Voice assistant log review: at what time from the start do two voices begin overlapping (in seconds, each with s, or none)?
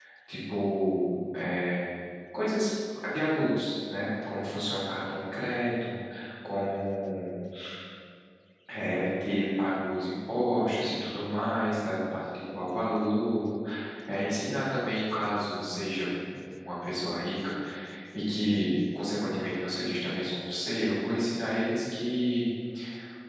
none